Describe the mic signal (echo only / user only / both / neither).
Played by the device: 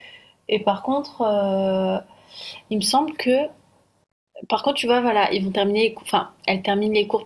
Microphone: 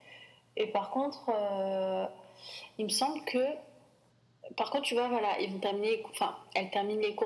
echo only